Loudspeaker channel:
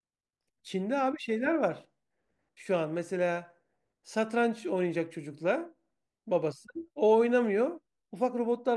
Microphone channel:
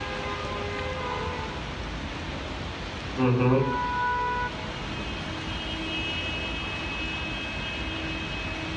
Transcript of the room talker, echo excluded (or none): Hı hı.